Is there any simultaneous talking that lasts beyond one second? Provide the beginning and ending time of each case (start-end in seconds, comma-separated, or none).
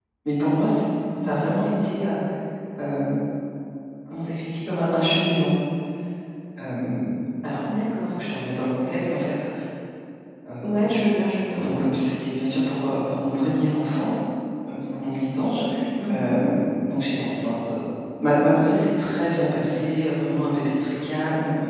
none